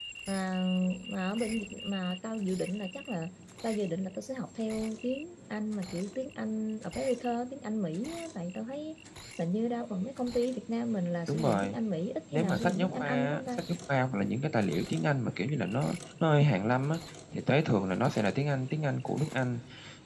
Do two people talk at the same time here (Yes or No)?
Yes